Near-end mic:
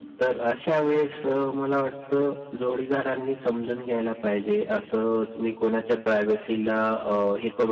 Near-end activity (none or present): none